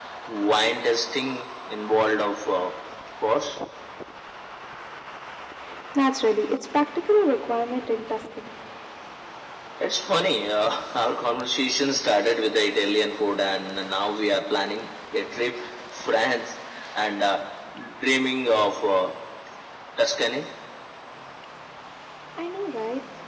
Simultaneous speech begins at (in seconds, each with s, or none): none